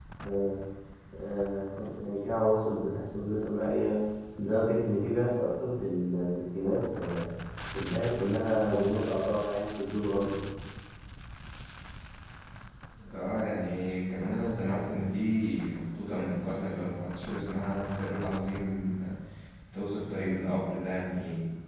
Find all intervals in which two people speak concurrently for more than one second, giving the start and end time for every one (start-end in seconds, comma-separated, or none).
none